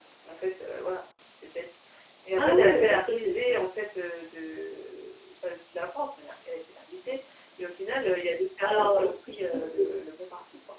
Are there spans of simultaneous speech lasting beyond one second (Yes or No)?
Yes